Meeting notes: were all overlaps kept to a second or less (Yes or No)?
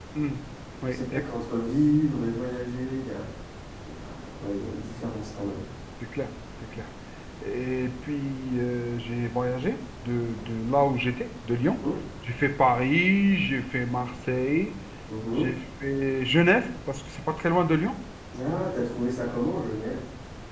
Yes